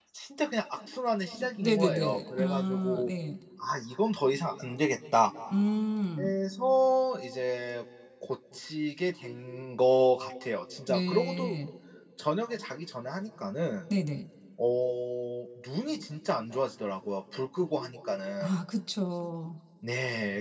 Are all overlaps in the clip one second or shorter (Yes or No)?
No